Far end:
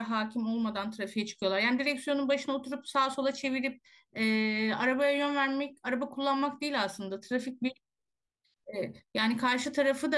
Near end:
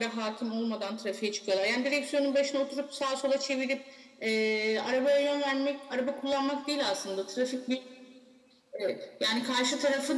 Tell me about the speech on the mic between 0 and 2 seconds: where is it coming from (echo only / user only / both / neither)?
echo only